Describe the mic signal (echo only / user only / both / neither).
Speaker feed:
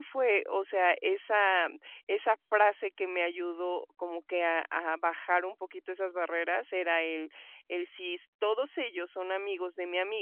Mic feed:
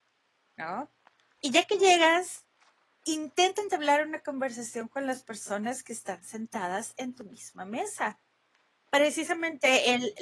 user only